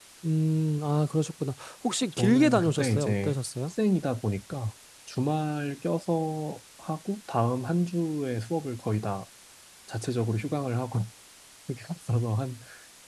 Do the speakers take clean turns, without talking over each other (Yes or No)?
No